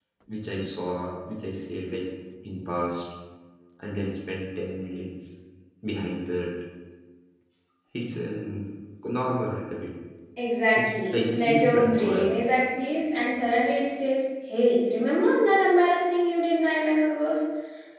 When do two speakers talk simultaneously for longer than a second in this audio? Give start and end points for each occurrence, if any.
10.8-12.3

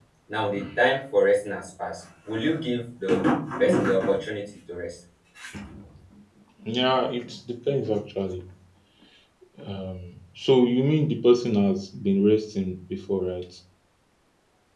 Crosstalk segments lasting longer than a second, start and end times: none

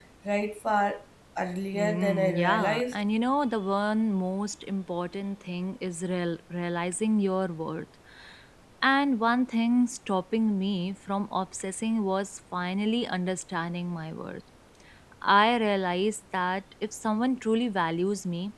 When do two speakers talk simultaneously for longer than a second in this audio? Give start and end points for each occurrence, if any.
1.7-3.0

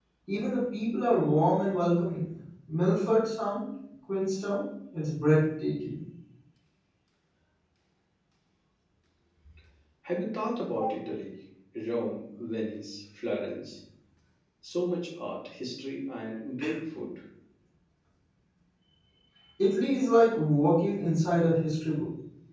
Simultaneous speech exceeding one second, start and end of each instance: none

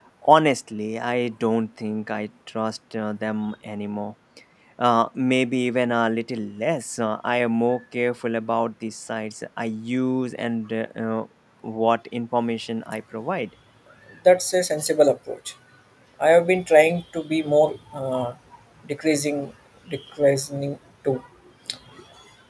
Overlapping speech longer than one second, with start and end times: none

